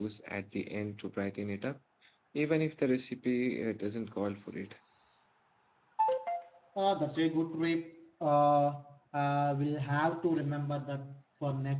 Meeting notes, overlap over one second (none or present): none